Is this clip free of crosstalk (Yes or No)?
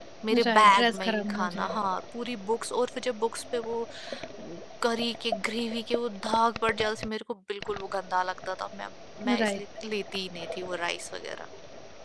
No